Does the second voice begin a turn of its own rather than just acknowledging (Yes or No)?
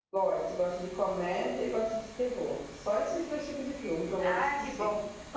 Yes